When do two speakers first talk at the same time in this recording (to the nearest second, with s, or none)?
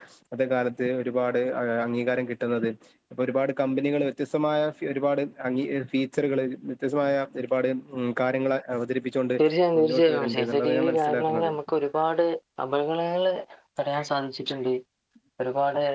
10 s